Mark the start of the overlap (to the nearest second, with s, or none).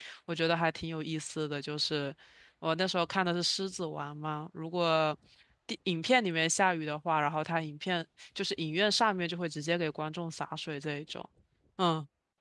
none